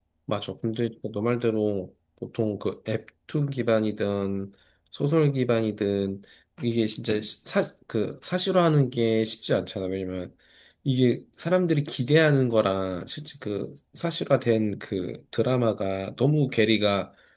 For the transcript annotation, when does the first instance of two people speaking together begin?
none

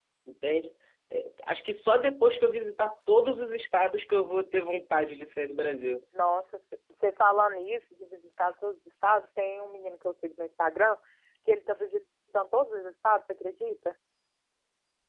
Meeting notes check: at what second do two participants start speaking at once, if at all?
none

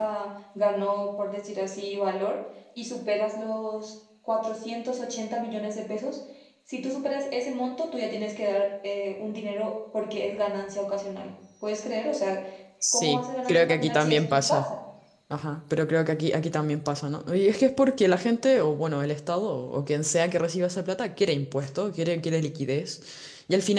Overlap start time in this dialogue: 12.9 s

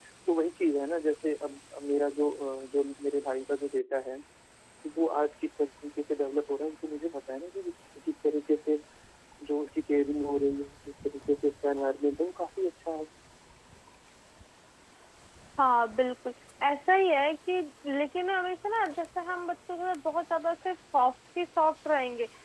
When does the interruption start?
none

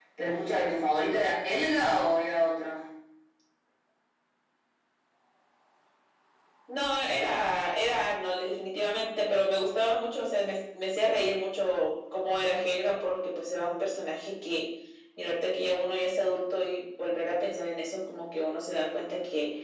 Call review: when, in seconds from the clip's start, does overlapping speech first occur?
none

